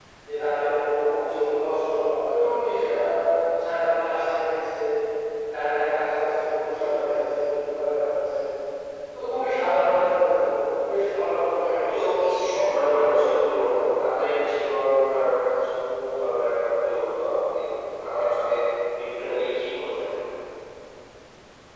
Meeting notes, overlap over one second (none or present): none